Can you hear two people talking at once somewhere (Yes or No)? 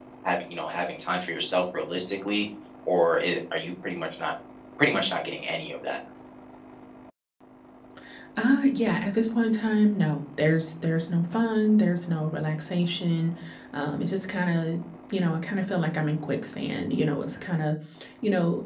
No